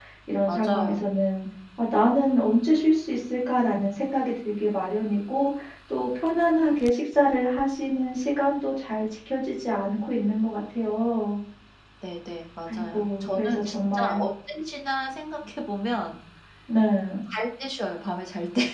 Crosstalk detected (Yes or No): Yes